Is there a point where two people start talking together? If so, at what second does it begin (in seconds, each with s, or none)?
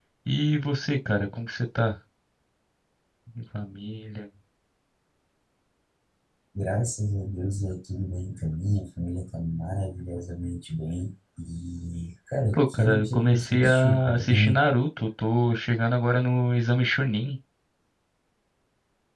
12.6 s